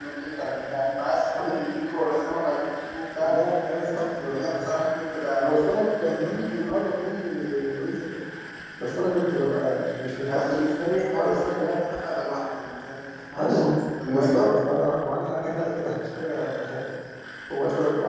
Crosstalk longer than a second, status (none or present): present